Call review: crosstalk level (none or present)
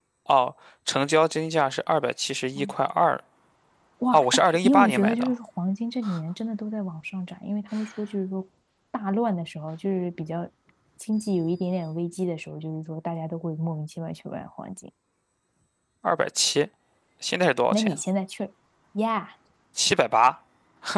present